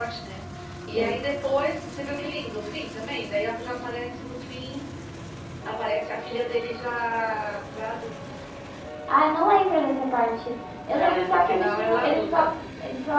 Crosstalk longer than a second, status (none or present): present